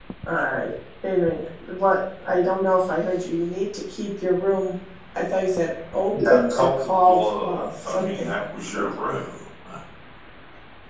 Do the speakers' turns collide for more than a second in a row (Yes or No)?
Yes